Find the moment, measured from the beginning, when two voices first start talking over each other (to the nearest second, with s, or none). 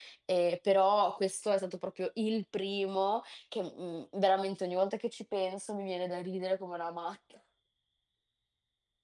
none